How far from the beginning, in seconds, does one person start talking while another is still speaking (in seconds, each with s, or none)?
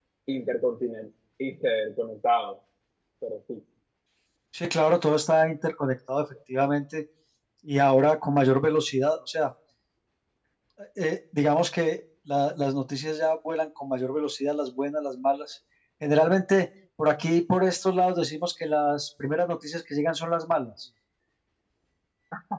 none